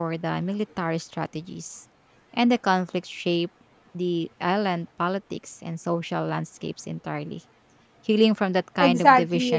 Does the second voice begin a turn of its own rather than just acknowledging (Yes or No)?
Yes